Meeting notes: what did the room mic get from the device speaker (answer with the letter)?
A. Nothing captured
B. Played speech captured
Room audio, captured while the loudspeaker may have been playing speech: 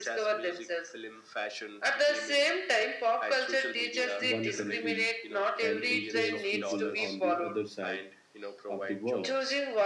B